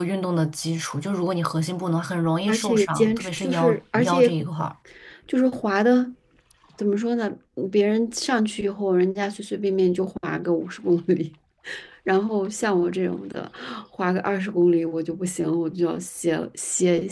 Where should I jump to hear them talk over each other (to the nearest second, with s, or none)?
2 s